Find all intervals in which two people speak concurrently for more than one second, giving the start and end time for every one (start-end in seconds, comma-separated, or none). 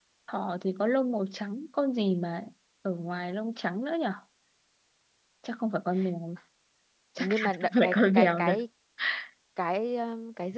7.2-8.6